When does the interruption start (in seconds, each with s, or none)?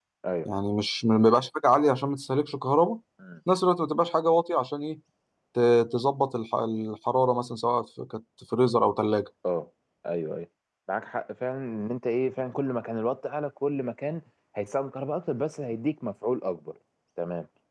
none